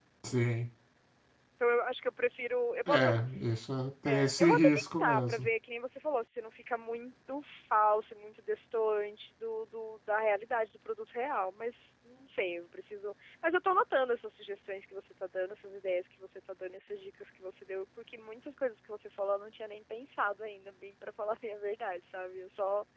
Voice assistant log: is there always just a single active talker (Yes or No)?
No